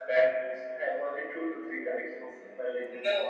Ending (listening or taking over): taking over